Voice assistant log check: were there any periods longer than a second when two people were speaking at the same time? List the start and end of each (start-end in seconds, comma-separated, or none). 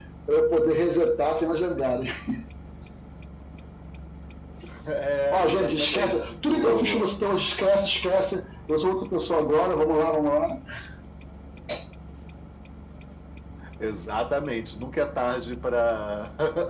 5.3-7.1